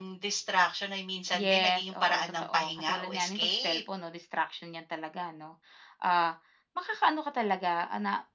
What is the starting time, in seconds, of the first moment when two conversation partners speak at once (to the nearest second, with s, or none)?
1 s